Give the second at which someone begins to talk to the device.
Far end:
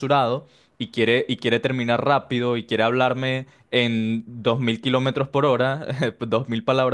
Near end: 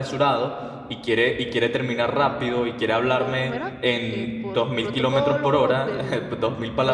3.1 s

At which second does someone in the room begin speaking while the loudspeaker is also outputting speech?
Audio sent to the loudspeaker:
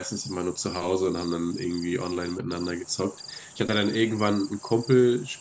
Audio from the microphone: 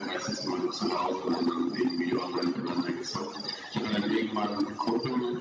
none

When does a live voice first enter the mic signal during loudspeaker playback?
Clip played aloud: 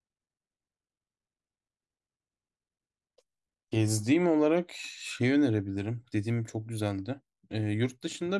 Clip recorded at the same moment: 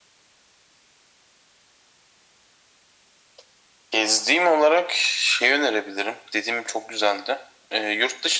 none

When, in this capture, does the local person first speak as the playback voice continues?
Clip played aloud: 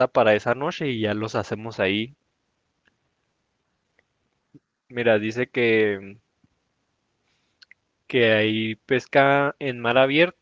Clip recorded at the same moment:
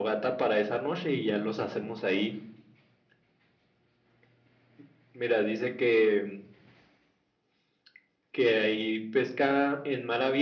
none

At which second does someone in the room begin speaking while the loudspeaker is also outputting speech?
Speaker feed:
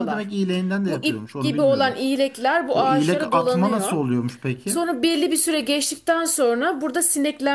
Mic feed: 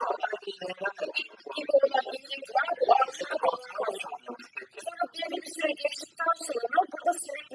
none

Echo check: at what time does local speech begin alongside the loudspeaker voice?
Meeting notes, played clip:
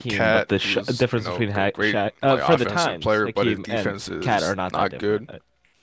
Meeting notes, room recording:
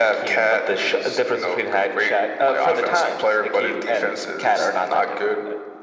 none

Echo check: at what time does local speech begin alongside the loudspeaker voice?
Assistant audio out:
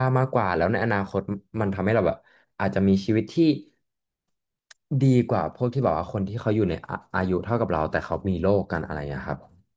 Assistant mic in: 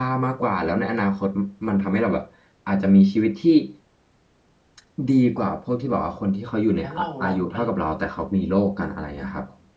6.8 s

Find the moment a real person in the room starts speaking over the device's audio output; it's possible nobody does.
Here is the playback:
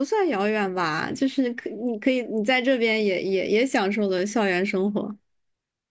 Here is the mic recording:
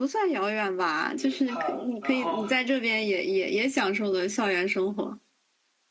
1.2 s

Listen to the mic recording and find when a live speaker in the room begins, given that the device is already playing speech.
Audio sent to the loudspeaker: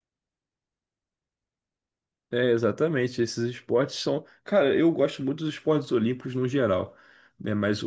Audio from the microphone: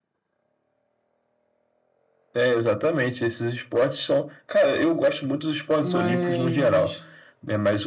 5.8 s

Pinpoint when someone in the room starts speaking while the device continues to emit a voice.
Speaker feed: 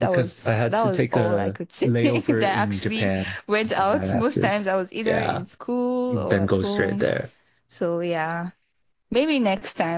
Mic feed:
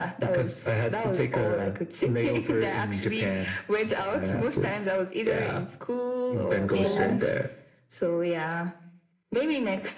6.7 s

